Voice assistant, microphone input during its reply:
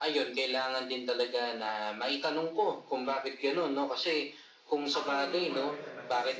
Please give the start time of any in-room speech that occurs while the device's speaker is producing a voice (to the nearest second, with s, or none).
5 s